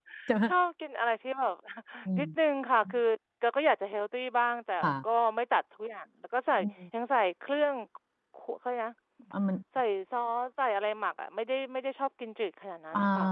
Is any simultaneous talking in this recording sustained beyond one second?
No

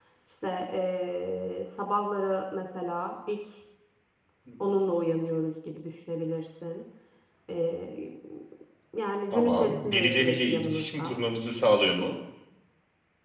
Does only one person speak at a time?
No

